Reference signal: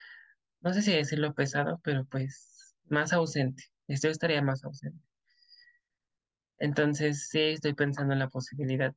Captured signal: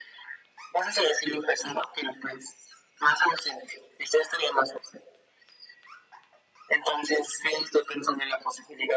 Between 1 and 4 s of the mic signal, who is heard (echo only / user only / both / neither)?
echo only